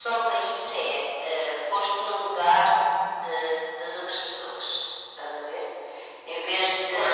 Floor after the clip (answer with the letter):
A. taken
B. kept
A